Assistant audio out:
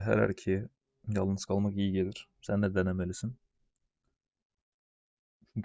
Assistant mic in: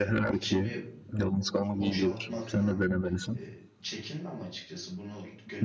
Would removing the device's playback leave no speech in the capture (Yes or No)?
No